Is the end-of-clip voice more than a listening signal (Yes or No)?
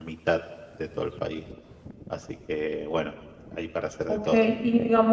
Yes